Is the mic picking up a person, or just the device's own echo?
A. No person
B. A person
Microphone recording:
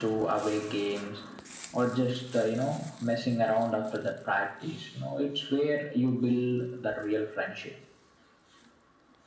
A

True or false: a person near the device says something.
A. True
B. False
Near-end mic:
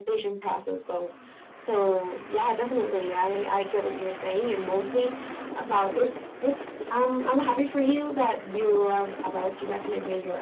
B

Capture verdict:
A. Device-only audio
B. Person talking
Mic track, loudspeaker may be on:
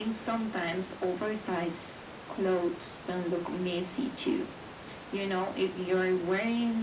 A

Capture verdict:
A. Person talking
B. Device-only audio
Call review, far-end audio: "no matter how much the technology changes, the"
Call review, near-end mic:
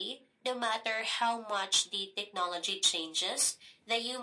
B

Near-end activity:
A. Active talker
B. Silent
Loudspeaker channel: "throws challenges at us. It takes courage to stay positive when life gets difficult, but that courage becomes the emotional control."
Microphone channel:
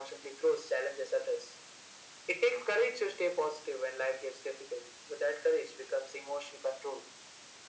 B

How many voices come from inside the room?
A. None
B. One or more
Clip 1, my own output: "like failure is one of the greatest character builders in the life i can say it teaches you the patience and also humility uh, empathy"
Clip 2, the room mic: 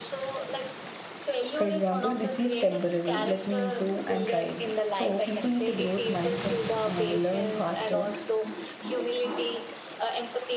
B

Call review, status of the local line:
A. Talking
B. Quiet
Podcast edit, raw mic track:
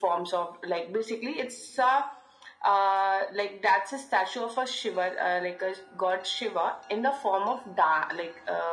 B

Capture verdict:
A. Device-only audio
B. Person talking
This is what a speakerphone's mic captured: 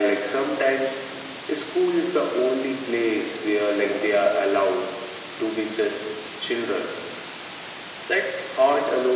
A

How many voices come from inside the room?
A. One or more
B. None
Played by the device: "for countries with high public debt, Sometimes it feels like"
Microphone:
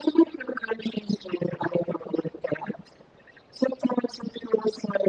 B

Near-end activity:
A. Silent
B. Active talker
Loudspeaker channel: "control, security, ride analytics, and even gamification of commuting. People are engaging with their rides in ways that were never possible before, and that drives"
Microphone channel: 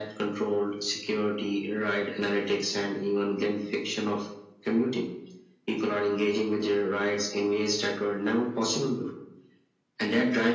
A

